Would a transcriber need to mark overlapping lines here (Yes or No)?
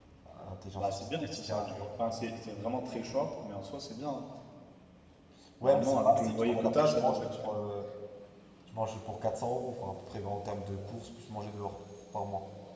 Yes